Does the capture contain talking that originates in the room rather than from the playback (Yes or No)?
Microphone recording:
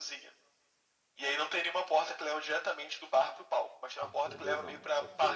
Yes